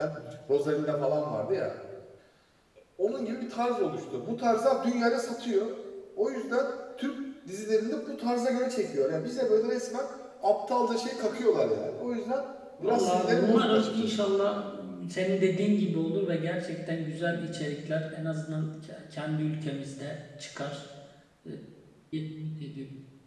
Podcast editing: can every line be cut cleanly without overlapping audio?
No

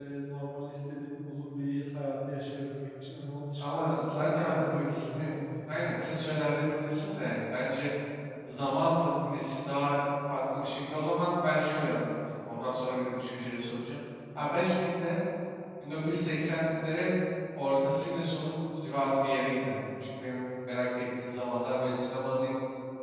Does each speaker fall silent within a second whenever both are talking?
No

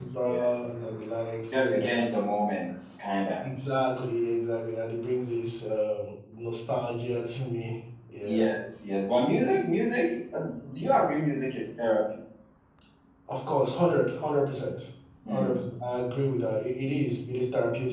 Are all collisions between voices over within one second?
Yes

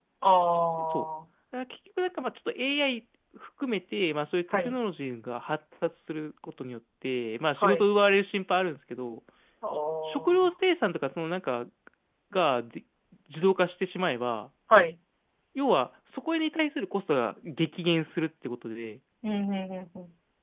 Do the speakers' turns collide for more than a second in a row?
No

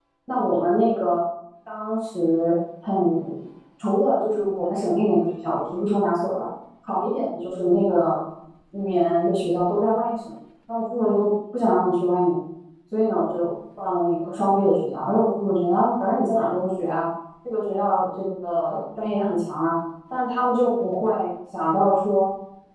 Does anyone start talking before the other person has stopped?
No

